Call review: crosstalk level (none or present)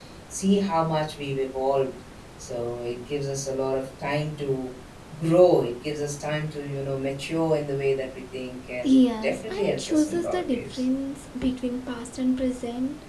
present